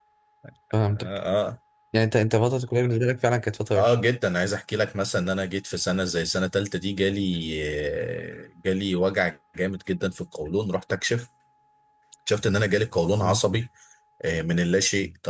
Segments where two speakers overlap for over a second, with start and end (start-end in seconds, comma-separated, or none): none